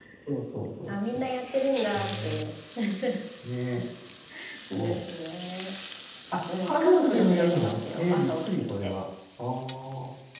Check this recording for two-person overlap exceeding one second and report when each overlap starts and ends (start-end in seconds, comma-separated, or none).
6.6-8.9